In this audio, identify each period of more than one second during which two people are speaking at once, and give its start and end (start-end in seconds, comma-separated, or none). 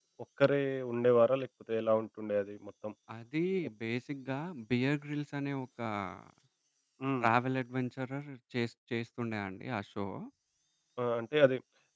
none